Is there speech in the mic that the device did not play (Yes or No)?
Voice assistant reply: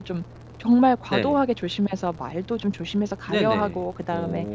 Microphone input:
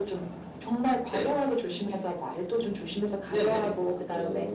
No